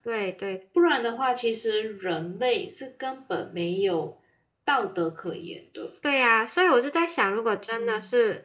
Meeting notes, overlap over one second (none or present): none